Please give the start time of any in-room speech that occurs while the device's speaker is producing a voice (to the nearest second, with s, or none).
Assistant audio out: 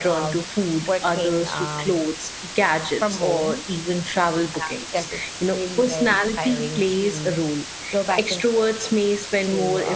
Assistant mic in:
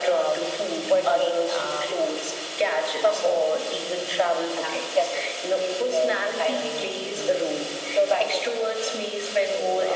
none